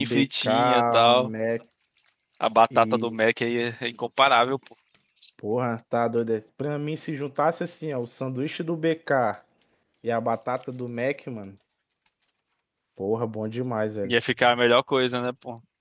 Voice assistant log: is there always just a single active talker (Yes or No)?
No